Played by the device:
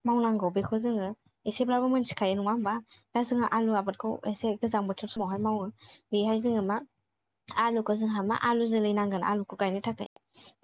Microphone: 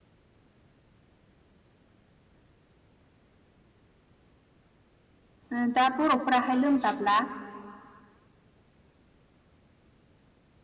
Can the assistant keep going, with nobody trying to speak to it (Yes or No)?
No